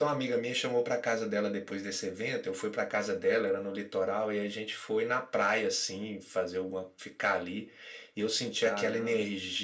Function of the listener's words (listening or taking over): listening